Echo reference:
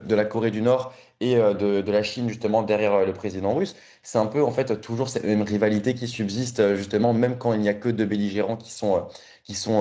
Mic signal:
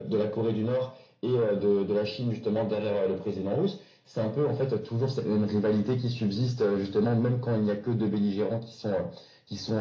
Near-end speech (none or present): none